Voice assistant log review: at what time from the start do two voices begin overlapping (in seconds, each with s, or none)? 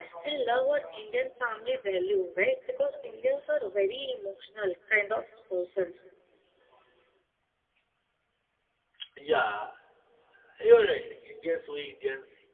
none